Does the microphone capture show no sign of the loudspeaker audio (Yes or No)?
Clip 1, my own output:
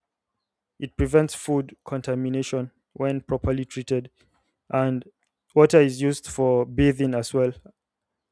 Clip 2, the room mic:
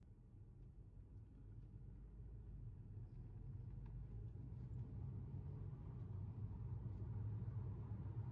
Yes